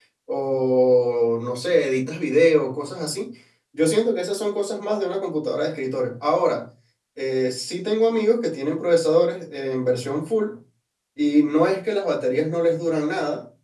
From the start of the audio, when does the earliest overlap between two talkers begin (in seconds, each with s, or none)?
none